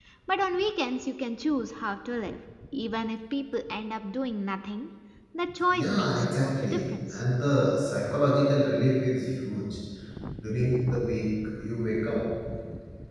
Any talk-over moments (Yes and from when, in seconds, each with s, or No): Yes, from 5.7 s